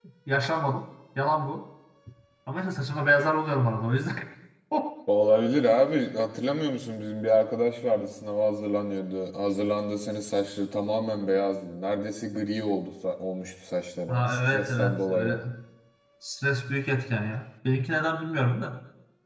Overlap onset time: 14.1 s

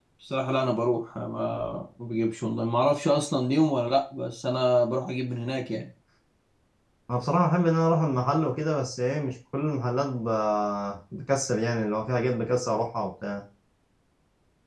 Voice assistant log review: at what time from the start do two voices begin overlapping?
none

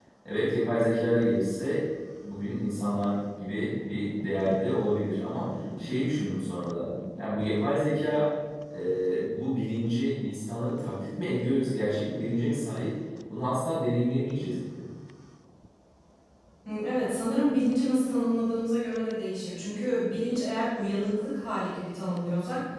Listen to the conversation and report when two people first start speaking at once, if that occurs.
none

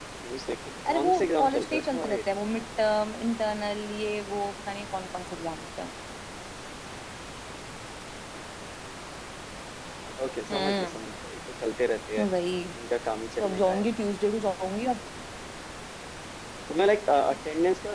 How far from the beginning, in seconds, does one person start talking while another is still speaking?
0.9 s

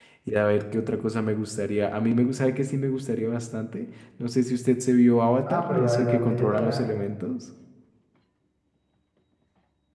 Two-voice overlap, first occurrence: 5.5 s

